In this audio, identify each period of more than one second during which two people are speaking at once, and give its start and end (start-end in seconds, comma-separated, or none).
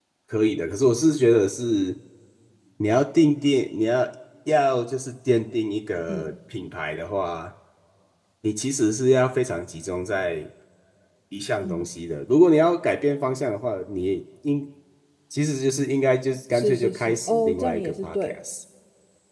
16.5-18.4